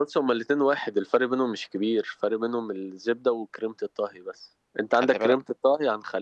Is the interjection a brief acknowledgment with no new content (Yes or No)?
Yes